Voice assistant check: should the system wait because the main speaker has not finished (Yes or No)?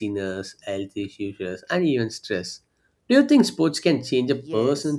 No